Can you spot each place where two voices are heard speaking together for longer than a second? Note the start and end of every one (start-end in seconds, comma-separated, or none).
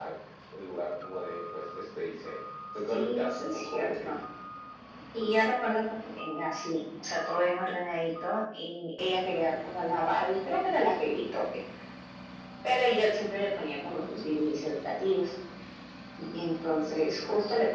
2.9-4.1